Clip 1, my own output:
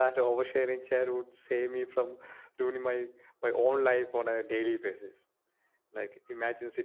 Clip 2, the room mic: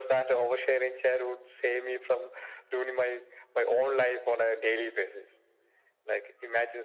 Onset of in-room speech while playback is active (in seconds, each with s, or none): none